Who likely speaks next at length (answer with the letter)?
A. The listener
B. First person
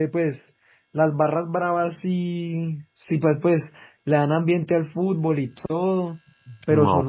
A